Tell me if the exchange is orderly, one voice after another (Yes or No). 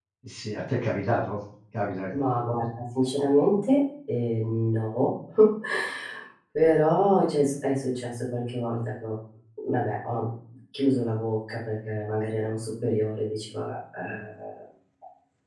Yes